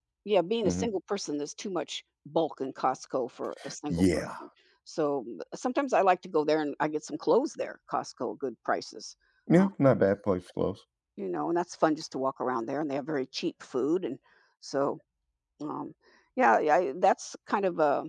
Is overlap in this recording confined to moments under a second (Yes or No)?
Yes